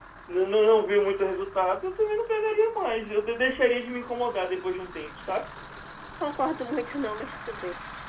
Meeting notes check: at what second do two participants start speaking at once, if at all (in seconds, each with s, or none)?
none